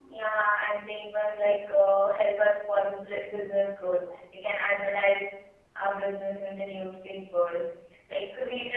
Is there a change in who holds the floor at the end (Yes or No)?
No